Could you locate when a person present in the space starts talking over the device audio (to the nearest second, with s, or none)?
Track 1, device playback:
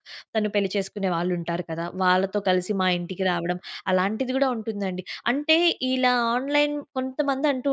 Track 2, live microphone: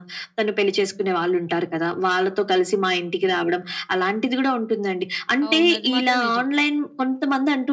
5 s